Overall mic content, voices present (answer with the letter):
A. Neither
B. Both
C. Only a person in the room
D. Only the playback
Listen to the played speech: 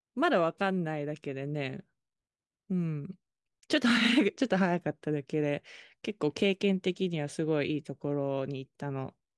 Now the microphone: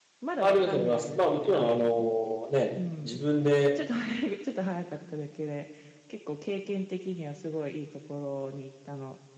B